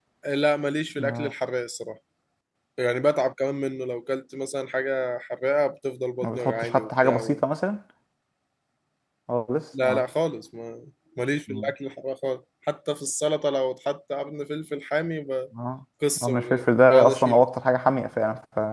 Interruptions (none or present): present